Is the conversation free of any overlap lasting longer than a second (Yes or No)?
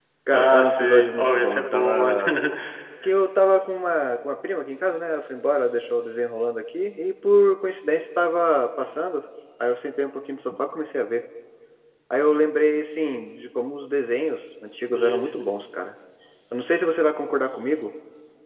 No